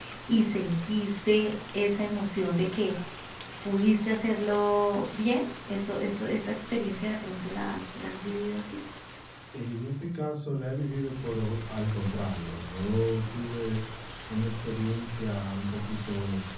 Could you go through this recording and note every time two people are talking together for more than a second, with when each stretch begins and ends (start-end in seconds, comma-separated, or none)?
none